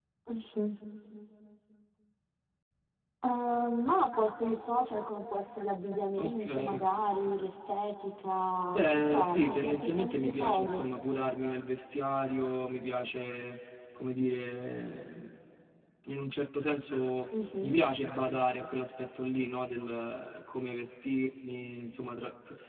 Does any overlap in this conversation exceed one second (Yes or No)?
Yes